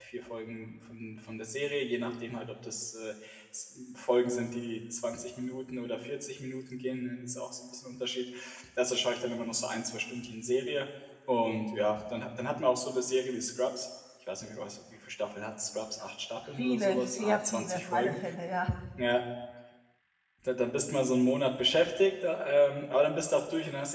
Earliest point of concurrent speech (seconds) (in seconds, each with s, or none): 16.6 s